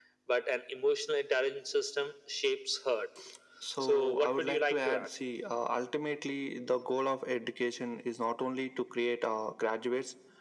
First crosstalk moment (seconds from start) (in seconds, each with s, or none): 3.8 s